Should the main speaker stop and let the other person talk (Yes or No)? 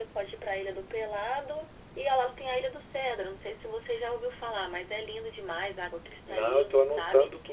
Yes